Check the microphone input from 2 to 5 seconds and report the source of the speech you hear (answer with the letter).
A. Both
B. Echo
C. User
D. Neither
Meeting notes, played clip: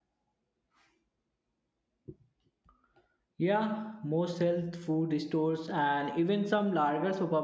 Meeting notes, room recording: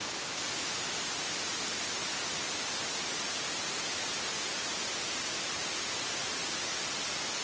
D